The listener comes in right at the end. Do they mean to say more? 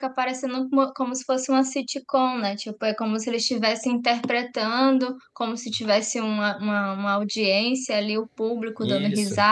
No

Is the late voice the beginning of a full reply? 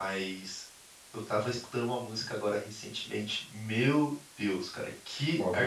No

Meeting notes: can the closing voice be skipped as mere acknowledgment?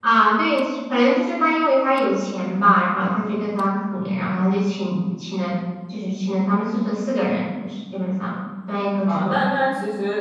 No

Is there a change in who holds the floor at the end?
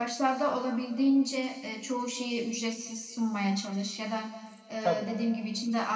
No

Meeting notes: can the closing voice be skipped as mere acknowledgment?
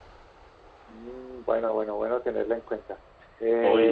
No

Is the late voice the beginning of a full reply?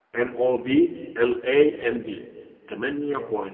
No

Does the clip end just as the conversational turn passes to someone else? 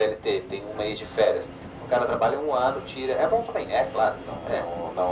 No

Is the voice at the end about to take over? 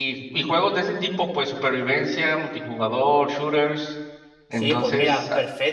Yes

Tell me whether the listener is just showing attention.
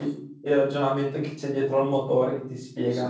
No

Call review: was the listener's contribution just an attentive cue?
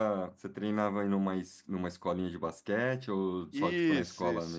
No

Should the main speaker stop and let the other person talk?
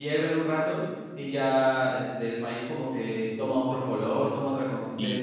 Yes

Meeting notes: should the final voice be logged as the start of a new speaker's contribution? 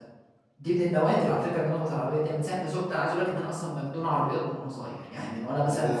No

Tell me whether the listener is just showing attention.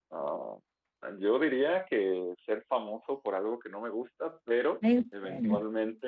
Yes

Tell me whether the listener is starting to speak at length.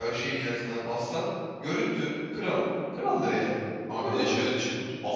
Yes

